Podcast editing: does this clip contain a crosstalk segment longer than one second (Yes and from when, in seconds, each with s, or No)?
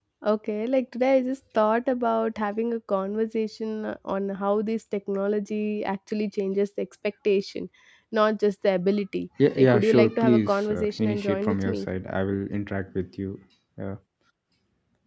Yes, from 9.4 s